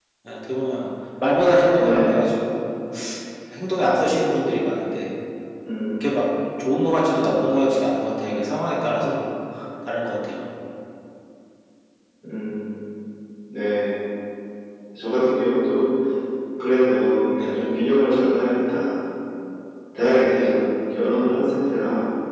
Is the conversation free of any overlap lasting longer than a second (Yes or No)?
Yes